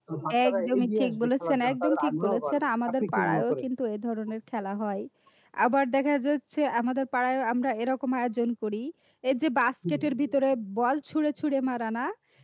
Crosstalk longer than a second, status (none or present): present